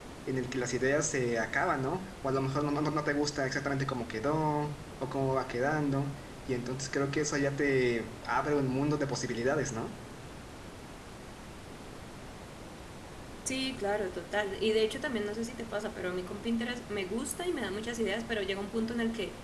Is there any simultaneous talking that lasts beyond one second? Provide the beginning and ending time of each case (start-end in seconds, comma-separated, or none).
none